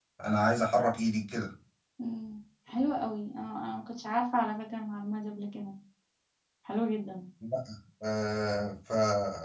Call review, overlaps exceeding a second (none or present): none